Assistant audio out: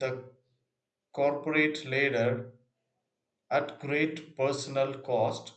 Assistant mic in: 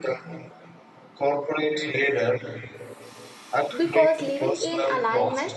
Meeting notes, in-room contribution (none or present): present